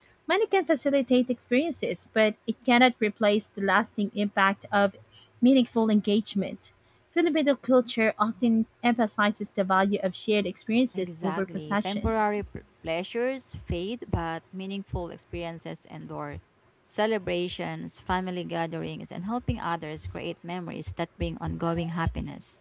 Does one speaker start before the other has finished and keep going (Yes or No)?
Yes